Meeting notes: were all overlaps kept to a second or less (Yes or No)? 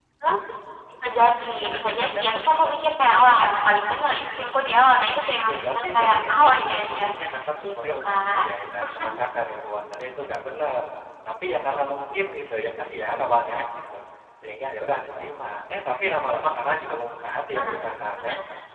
No